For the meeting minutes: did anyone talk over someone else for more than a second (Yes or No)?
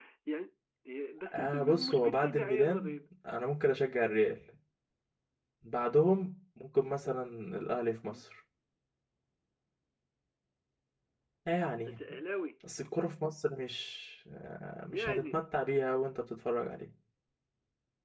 Yes